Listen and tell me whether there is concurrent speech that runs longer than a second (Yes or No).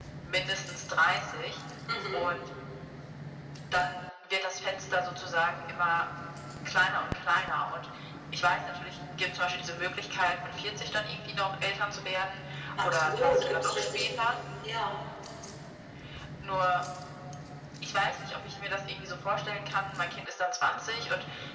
Yes